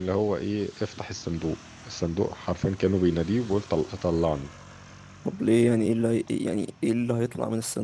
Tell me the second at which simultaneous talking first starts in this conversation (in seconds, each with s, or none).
none